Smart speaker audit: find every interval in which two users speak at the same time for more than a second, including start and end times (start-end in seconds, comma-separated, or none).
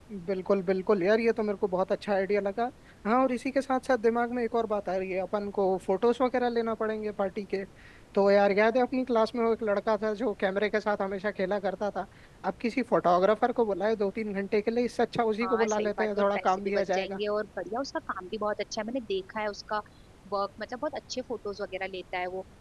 15.4-17.2